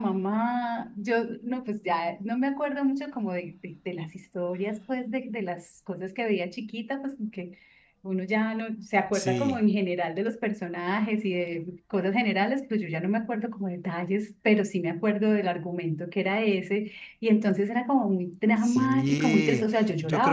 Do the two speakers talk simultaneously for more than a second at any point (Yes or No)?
Yes